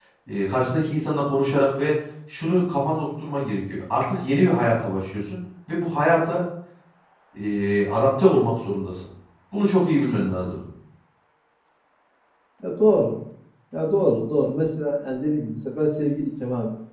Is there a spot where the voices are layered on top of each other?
No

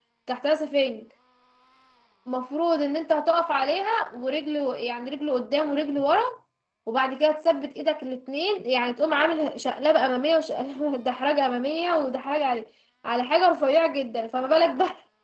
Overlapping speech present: No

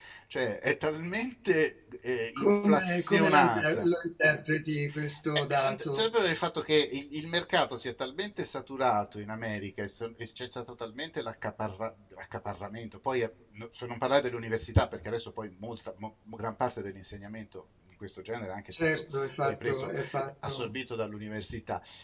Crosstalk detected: Yes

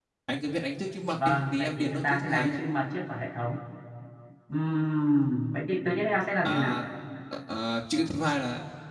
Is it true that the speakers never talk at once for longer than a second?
No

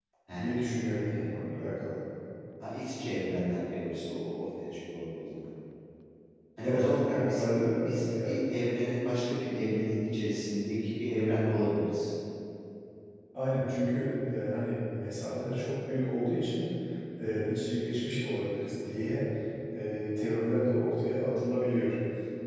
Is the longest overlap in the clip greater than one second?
Yes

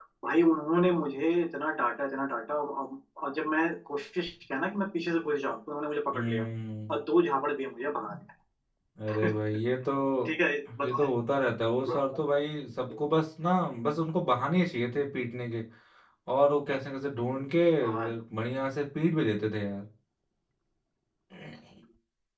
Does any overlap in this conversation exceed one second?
No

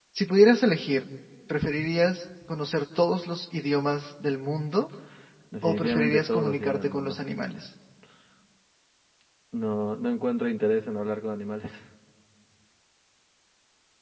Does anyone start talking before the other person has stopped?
Yes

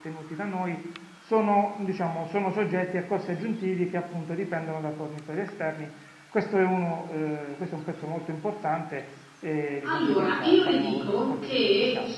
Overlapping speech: Yes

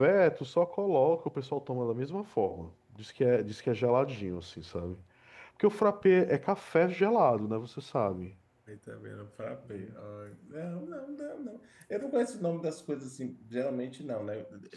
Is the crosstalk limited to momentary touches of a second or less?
Yes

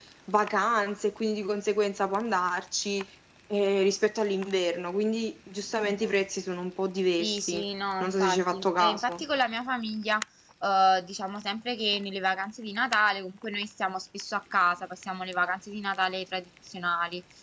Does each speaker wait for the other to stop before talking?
No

